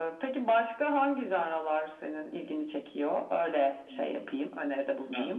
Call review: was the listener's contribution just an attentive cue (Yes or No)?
No